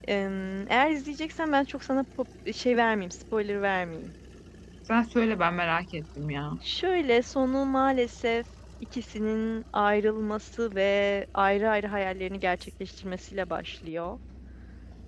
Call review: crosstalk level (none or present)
none